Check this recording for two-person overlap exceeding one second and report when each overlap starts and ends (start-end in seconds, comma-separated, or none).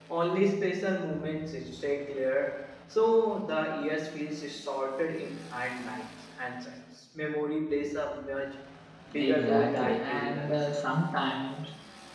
9.2-10.5